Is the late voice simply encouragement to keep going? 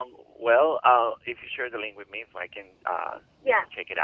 No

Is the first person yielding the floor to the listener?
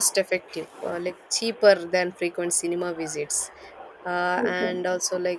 No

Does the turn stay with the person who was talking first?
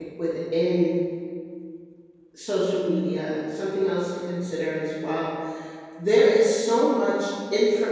Yes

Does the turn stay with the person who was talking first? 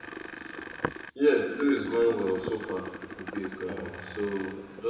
Yes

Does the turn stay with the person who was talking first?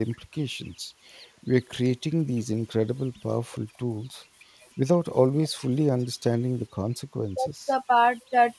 No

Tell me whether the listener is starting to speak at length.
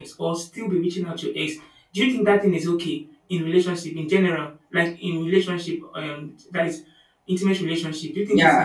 Yes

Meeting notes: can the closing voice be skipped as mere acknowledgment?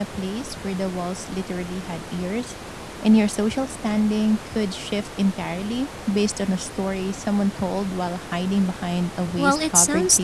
No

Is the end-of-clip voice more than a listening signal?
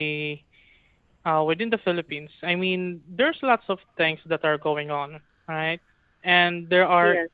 No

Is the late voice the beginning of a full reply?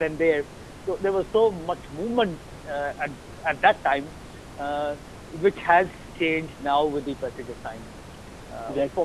No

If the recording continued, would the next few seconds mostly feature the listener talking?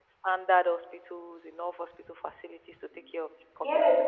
Yes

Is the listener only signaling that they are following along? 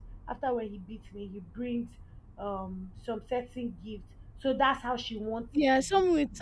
No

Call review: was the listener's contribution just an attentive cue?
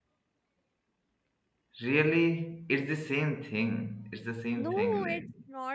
No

